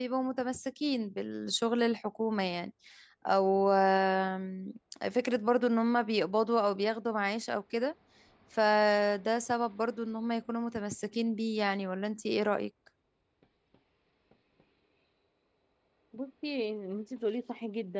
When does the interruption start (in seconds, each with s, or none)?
none